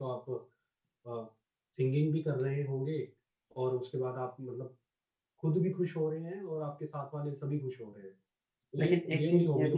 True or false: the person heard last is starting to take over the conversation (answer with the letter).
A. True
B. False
A